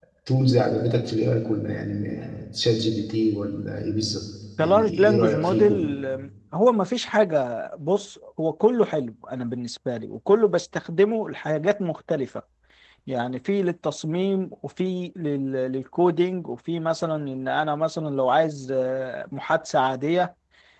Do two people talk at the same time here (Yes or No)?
Yes